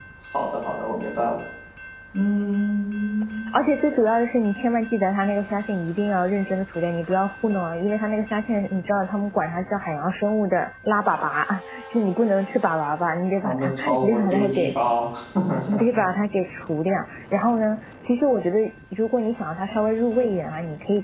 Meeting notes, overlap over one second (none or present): present